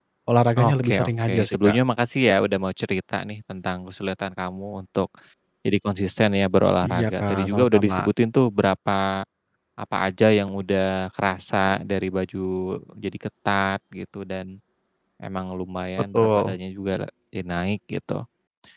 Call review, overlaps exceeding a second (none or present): present